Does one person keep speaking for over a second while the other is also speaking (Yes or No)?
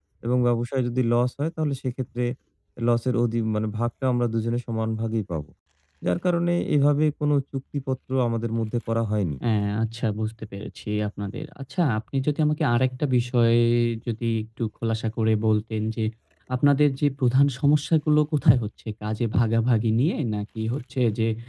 No